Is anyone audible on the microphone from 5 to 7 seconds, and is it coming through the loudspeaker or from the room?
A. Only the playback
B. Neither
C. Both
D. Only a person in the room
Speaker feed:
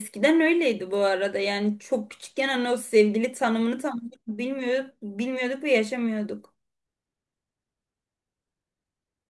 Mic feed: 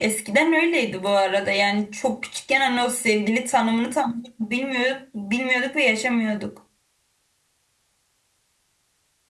A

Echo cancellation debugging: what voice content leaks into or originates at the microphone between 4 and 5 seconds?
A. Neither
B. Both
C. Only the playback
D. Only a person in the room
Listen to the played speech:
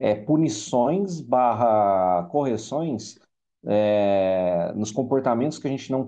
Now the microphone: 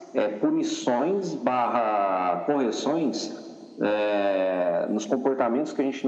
C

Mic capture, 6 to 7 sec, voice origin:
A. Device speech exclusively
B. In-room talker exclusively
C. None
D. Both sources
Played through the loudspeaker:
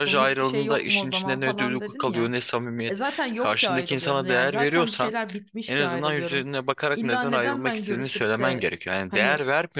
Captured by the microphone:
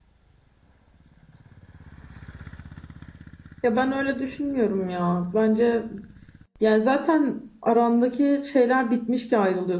B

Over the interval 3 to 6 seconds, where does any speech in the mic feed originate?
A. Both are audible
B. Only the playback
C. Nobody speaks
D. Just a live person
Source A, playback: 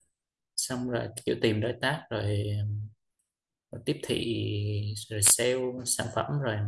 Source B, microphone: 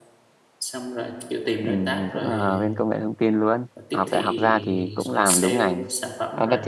A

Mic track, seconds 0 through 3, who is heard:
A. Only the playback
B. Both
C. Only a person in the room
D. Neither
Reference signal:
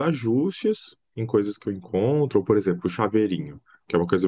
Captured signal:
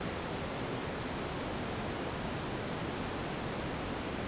D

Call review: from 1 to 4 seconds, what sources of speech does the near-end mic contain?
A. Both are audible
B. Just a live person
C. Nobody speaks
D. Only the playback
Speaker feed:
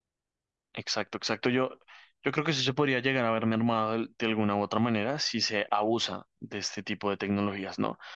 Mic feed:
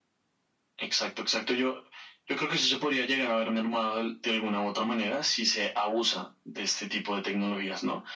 D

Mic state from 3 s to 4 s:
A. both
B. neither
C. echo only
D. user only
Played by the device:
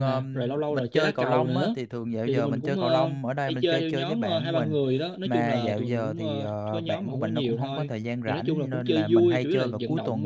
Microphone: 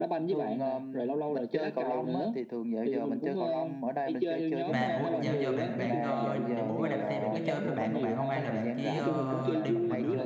C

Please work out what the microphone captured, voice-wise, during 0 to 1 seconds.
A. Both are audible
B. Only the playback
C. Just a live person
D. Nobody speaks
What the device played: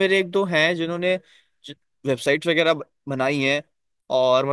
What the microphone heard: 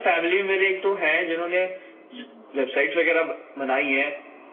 B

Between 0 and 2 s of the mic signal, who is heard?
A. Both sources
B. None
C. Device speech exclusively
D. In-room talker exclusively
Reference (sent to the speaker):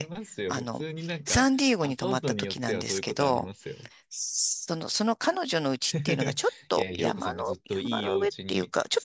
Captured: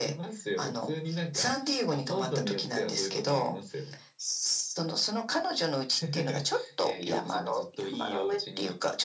C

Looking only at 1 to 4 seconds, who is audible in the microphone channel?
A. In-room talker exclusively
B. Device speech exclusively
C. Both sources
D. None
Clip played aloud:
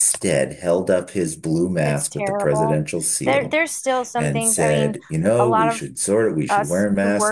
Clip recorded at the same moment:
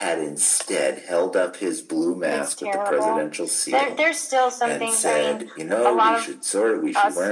B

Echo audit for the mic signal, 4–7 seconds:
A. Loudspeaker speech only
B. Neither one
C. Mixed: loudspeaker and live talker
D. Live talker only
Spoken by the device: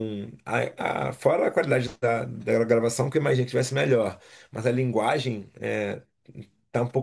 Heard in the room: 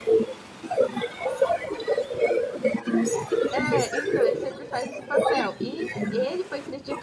C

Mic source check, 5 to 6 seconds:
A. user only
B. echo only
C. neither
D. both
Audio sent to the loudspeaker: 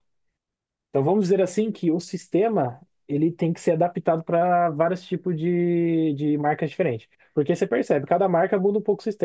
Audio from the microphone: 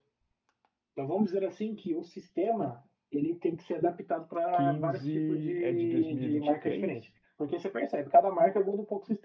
D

